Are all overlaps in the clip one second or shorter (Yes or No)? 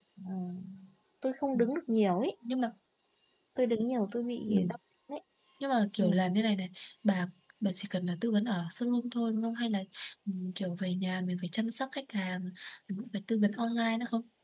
Yes